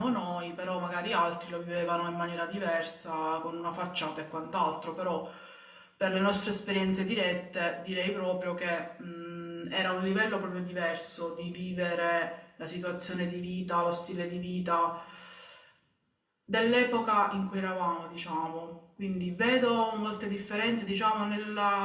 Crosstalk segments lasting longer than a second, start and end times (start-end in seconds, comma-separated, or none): none